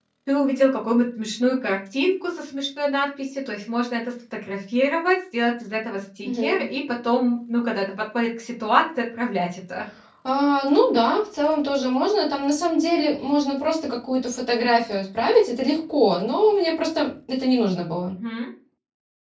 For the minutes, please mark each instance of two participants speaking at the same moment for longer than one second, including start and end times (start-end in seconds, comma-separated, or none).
none